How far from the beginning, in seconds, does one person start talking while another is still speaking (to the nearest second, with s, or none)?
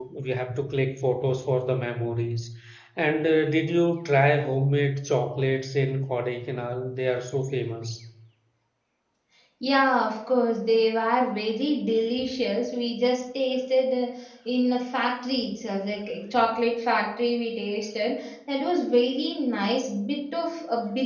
none